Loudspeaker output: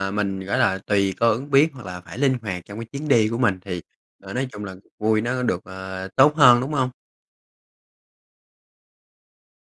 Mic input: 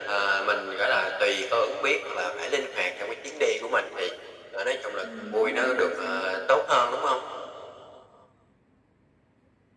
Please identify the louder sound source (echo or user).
echo